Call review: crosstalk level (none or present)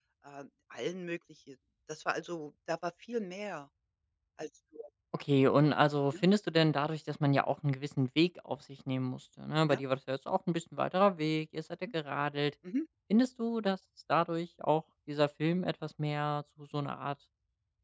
none